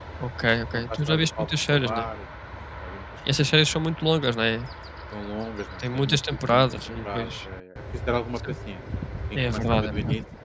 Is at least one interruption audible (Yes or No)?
Yes